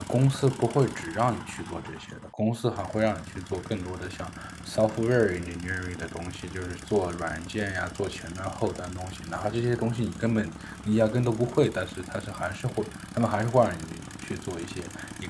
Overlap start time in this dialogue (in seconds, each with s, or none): none